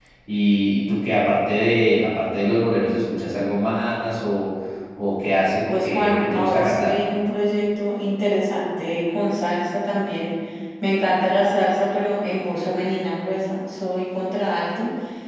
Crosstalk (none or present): present